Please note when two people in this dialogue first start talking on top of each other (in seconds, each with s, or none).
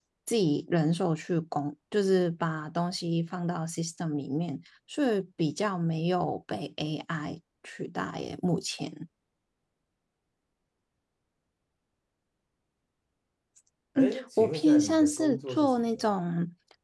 14.0 s